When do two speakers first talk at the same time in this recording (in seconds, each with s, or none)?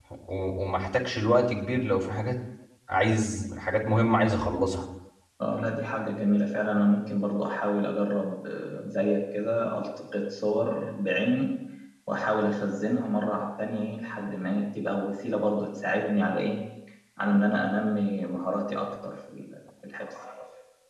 none